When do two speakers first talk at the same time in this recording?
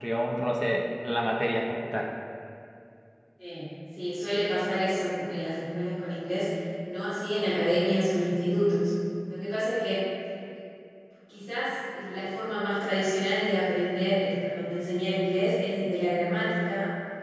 none

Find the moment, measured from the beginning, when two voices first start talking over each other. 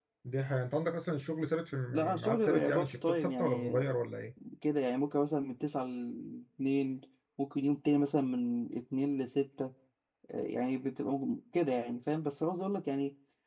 2 s

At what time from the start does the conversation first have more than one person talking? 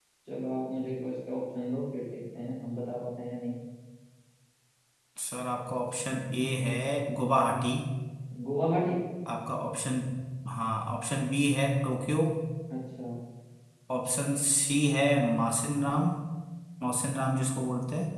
none

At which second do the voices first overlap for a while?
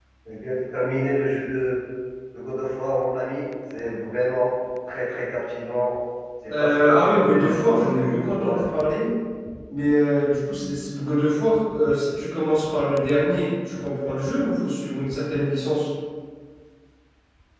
6 s

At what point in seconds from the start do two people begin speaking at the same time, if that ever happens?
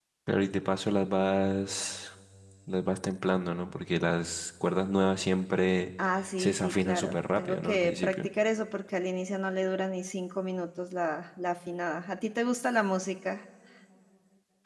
6 s

